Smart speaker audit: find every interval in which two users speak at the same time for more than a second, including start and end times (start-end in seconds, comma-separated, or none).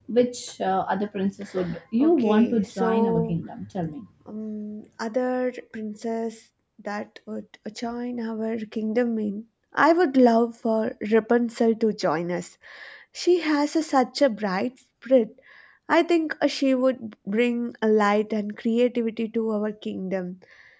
2.0-3.4